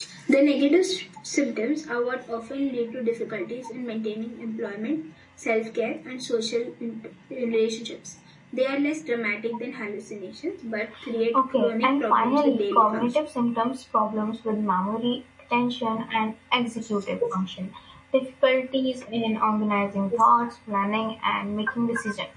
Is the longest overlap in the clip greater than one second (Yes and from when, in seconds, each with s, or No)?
Yes, from 11.3 s